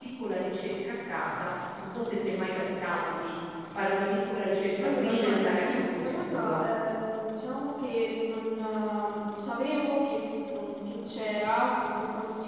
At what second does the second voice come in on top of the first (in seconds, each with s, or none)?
4.8 s